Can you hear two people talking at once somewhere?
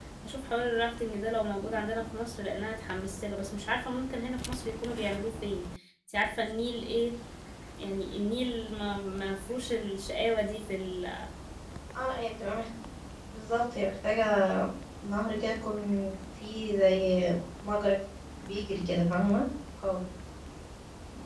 No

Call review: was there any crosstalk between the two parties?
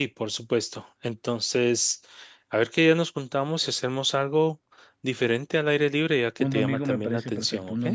Yes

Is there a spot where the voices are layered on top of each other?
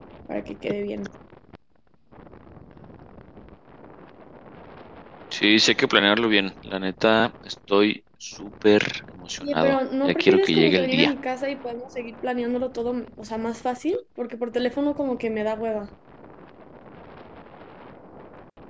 Yes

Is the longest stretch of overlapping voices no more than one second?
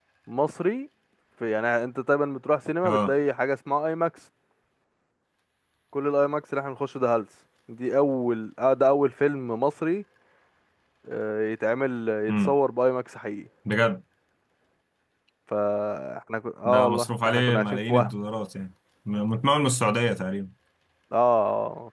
No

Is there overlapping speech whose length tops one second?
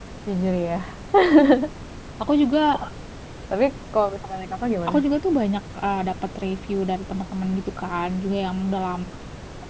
No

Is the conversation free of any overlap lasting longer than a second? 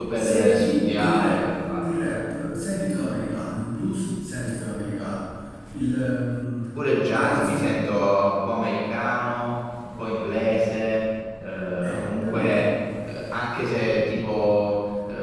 No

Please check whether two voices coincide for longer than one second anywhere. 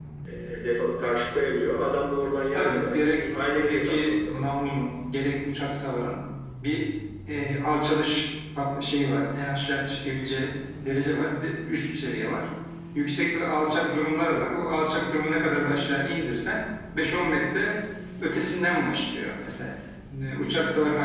Yes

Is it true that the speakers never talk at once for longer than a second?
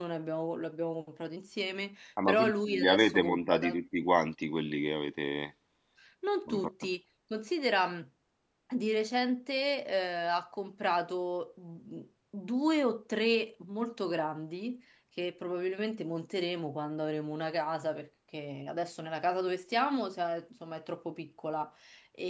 No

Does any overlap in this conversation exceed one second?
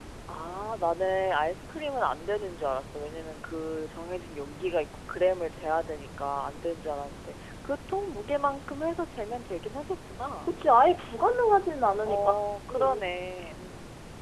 No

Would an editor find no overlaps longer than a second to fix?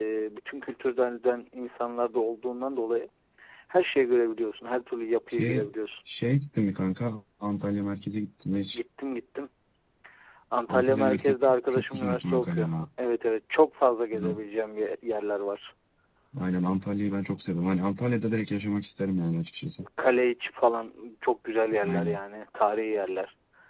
No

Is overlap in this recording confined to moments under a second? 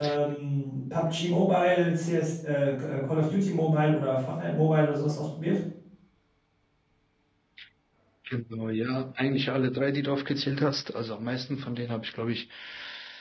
Yes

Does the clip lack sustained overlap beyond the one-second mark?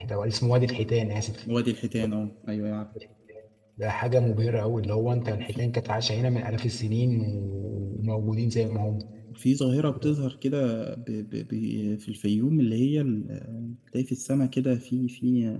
Yes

